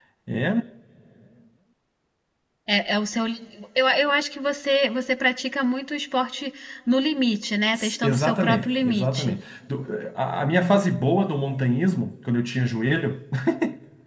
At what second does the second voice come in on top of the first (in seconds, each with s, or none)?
8.0 s